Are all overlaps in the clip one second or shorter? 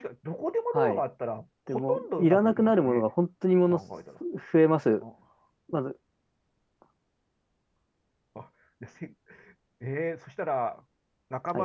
No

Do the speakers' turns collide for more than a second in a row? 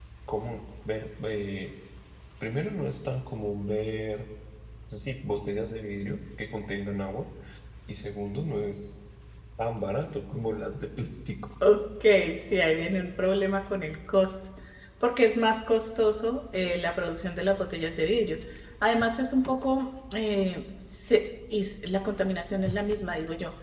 No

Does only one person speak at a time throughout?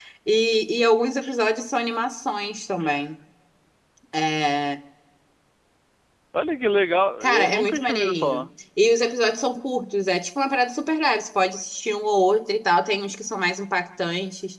No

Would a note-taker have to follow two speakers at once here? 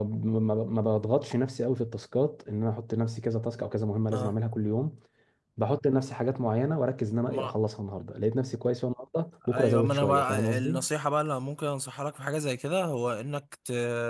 Yes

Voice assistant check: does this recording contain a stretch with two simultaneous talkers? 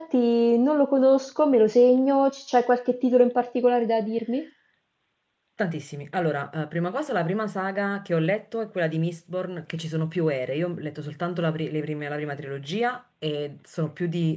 No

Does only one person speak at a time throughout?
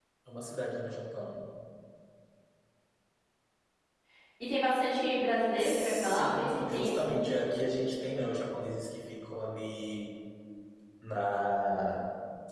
No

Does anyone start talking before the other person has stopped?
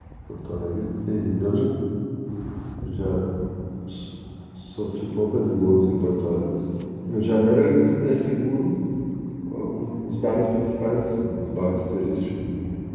No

